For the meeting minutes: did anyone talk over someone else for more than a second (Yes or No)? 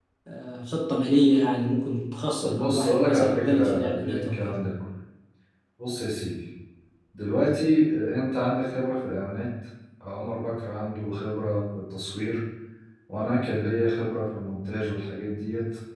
Yes